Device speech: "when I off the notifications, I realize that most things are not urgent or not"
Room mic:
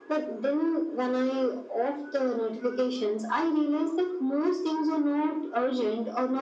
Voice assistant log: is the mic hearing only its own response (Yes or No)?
Yes